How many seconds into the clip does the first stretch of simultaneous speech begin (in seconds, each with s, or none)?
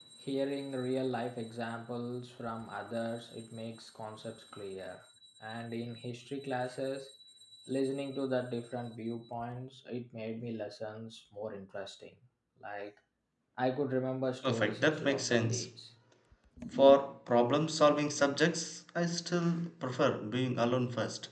14.4 s